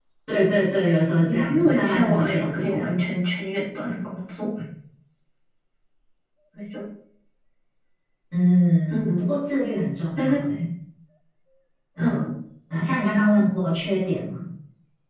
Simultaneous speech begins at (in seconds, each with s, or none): 1.3 s